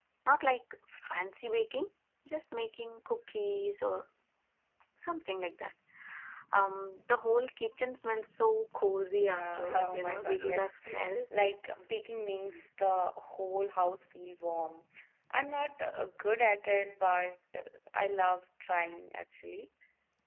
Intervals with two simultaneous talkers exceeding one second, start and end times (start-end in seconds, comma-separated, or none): 9.2-11.2